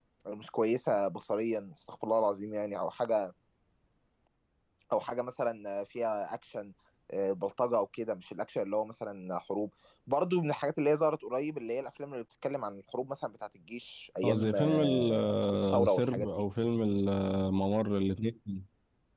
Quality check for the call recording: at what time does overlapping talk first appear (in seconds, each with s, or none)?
14.2 s